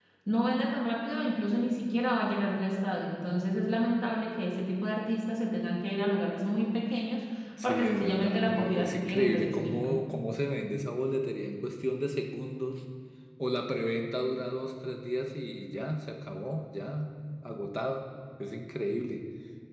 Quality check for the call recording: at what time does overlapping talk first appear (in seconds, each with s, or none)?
7.6 s